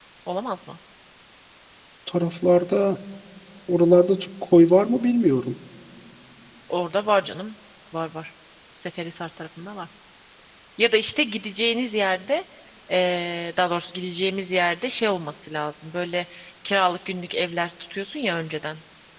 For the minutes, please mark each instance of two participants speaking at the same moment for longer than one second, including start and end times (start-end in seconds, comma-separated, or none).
none